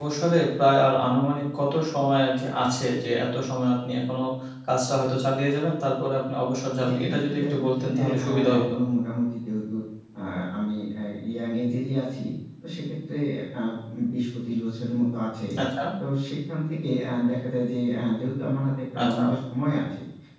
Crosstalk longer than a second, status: present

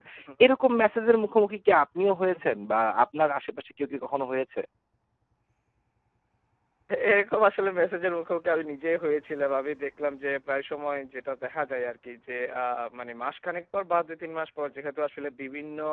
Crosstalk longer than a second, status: none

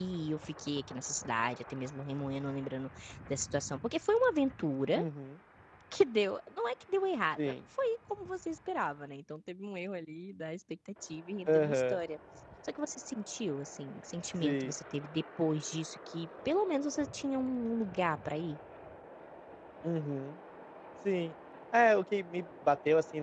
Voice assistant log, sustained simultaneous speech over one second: none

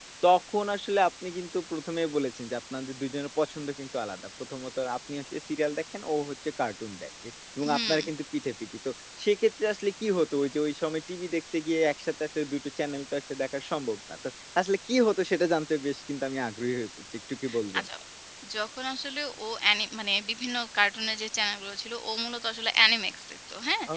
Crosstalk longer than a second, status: none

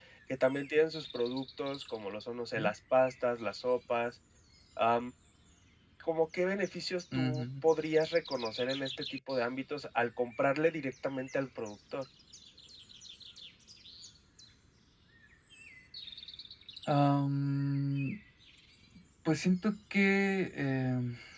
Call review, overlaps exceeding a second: none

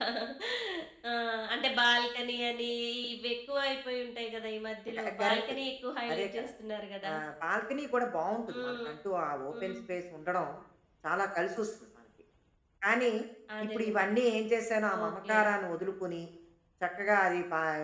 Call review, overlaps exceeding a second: none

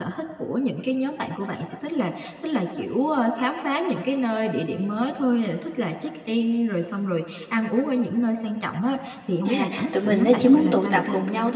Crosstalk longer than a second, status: present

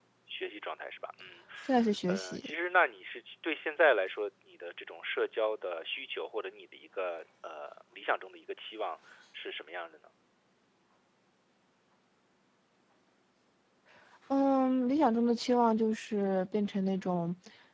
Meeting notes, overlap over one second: none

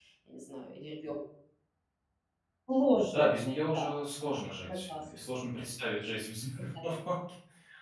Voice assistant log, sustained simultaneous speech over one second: none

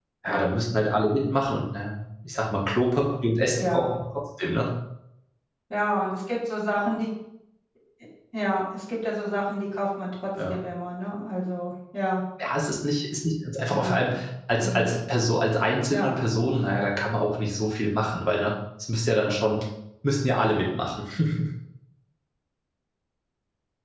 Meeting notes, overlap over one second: none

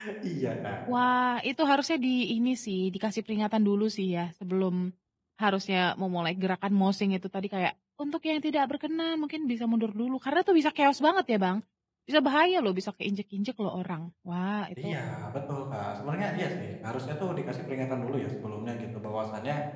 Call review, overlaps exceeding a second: none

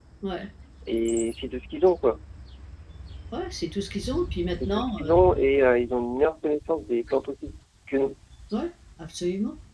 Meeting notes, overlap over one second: none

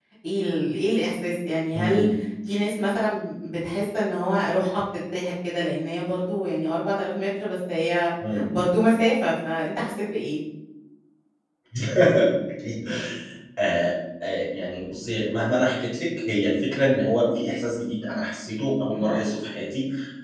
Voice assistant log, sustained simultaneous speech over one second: none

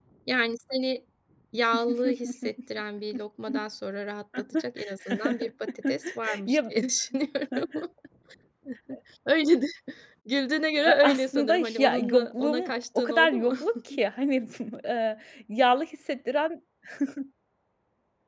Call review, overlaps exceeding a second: present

